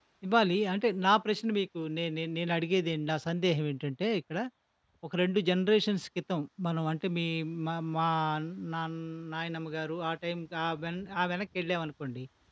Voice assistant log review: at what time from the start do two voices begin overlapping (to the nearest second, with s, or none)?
none